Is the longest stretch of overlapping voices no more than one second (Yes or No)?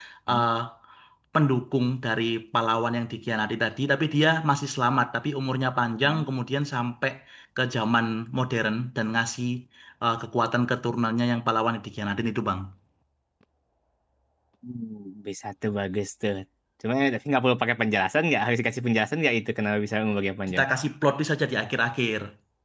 Yes